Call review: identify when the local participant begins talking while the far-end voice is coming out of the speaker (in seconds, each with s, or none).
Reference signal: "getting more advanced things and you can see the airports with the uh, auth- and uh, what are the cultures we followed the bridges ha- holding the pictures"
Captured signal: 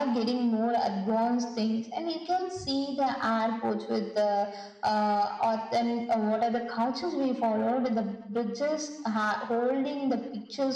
none